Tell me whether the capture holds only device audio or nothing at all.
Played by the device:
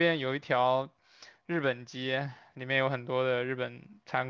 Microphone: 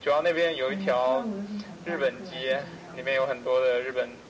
No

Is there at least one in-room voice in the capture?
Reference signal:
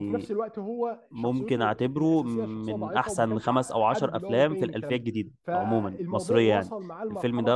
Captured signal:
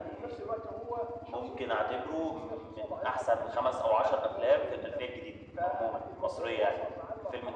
No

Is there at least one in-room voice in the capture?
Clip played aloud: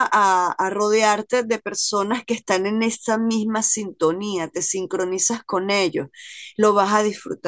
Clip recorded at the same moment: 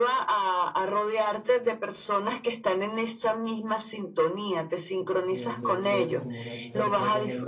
Yes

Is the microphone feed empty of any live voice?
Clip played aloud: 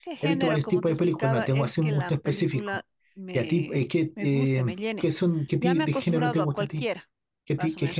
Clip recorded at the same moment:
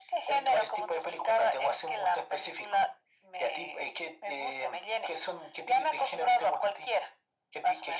Yes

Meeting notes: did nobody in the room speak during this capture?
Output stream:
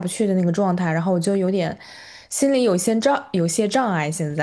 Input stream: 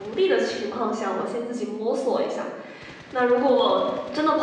No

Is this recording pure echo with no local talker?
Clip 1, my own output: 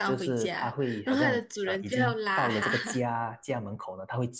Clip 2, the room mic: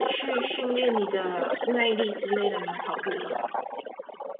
No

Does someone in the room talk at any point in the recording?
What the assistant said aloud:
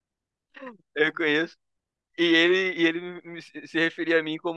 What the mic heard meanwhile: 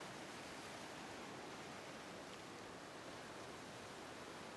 No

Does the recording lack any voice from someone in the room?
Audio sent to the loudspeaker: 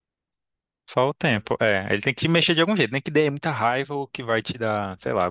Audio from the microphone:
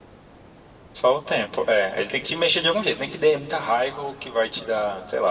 Yes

